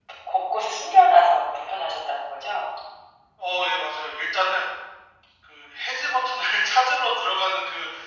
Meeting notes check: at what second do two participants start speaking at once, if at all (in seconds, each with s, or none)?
none